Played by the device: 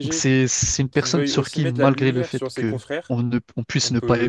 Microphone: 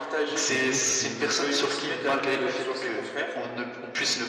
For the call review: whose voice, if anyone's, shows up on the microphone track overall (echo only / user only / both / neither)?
both